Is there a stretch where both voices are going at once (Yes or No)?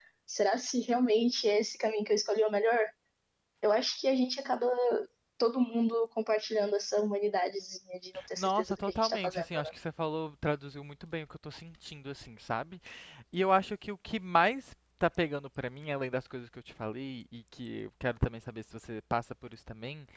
Yes